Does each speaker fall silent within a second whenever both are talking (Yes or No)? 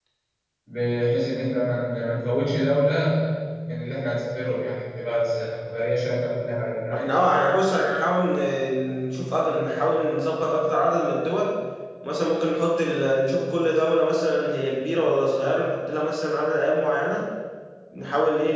Yes